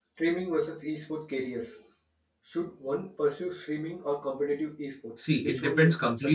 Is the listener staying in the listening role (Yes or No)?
No